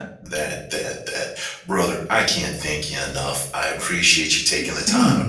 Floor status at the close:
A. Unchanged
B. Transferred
A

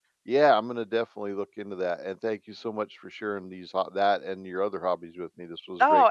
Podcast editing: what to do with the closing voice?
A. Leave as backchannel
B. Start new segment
B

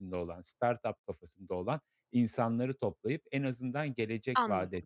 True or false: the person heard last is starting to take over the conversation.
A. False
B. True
A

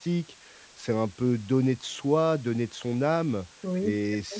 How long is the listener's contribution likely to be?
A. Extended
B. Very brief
B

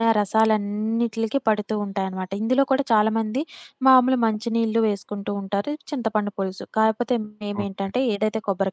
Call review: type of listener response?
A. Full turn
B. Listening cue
B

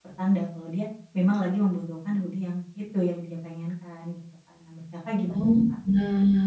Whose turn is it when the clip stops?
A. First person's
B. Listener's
B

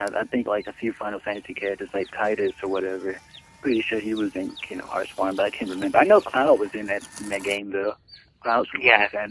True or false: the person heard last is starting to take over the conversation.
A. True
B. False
A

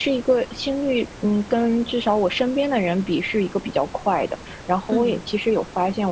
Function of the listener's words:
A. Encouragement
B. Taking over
A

